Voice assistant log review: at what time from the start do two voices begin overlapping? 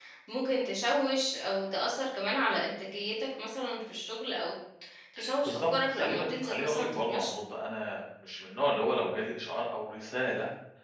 5.5 s

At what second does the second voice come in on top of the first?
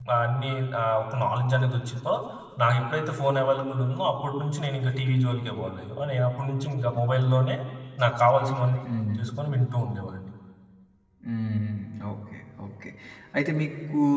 none

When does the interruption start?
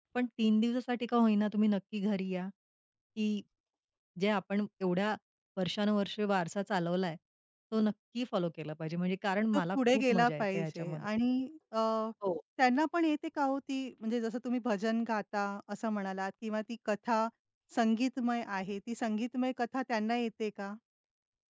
9.5 s

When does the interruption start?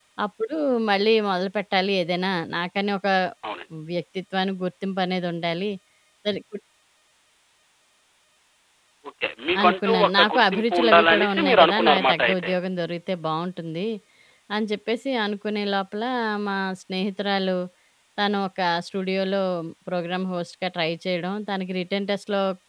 9.6 s

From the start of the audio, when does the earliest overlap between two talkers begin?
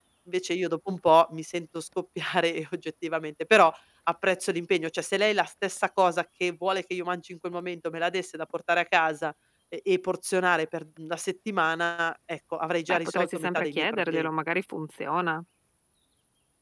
12.9 s

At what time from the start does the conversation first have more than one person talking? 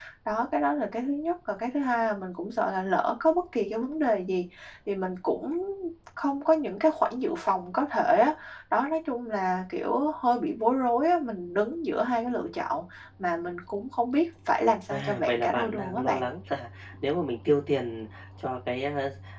14.9 s

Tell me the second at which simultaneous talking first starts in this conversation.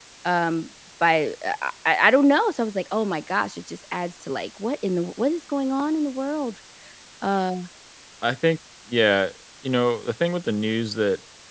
none

